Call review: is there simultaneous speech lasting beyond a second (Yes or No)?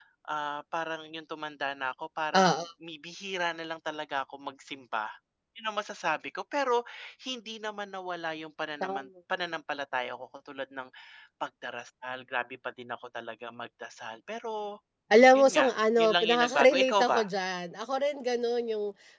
Yes